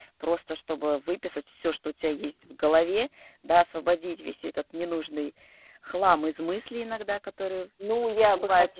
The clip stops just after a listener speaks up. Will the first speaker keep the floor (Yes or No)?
No